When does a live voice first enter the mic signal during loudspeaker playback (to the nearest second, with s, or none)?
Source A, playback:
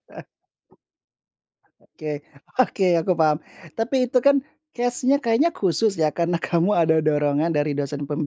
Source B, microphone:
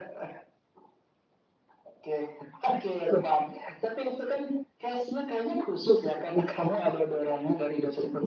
none